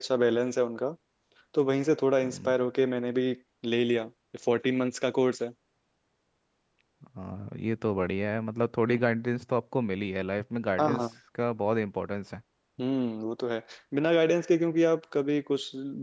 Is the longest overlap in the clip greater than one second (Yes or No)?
No